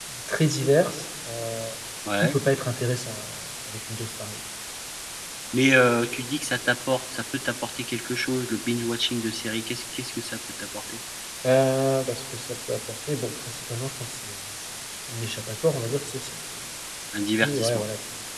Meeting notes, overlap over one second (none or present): none